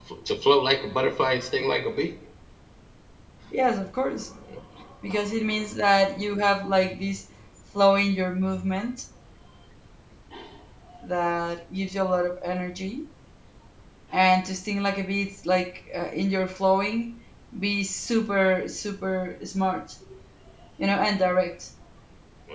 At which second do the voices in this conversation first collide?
none

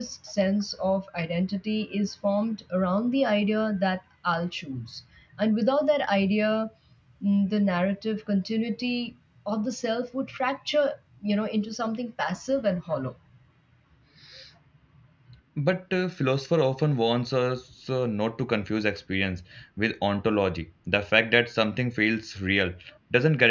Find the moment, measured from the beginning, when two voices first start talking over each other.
none

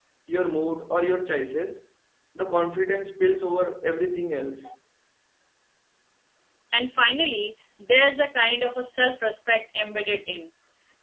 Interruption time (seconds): none

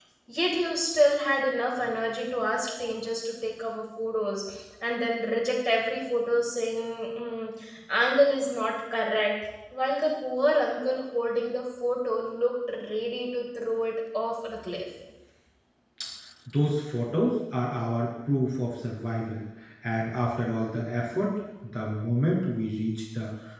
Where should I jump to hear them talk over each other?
none

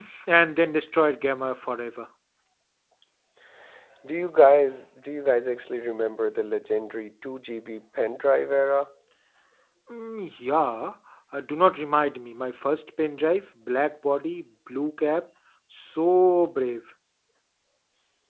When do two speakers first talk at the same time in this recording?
none

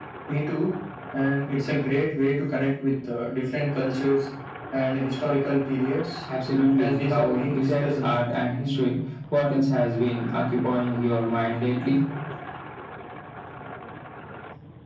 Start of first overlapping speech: 6.8 s

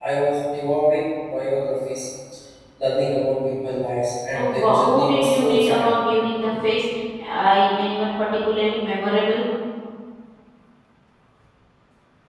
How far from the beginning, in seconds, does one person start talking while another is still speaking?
4.3 s

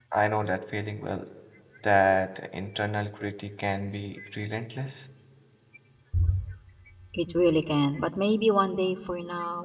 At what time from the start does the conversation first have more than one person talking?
none

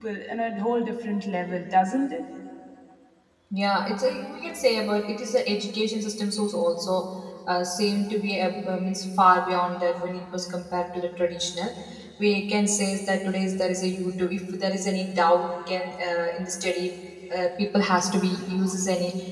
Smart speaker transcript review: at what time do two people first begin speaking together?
none

